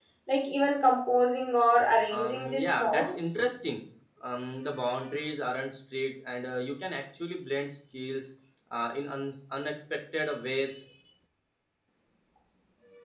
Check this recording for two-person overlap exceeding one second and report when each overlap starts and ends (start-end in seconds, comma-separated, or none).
2.1-3.4